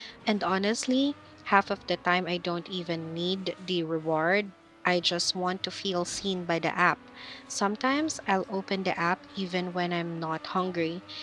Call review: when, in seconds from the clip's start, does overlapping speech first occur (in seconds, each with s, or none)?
none